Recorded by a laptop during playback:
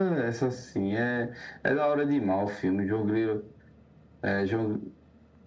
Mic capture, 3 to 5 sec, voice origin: echo only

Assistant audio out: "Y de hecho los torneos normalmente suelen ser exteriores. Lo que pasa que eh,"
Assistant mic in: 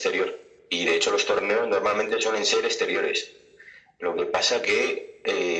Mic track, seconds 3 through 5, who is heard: echo only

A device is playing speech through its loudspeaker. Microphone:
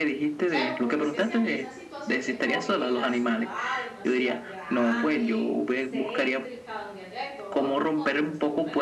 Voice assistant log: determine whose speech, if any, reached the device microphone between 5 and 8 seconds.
both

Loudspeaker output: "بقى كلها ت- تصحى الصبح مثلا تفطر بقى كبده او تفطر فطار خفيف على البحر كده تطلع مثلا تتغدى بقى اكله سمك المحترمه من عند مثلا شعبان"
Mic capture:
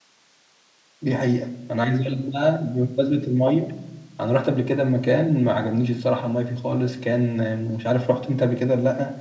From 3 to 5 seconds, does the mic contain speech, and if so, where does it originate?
user only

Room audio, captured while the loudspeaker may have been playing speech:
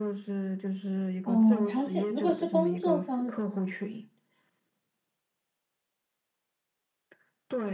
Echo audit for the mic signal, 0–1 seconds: echo only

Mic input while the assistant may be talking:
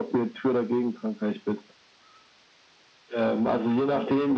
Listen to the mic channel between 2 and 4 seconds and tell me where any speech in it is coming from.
echo only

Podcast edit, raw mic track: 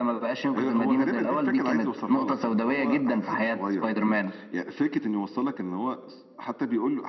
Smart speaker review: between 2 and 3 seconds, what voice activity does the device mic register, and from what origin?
echo only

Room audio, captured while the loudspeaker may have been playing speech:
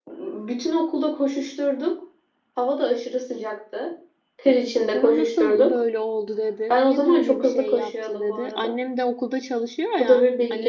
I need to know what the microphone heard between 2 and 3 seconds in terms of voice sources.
echo only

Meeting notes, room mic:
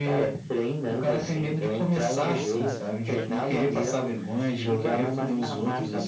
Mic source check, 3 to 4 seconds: both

